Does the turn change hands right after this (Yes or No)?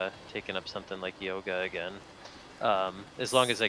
No